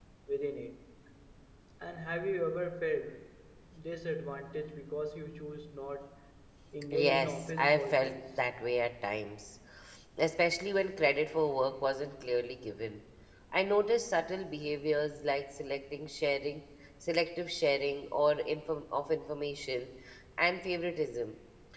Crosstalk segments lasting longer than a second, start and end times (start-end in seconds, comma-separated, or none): 6.9-8.2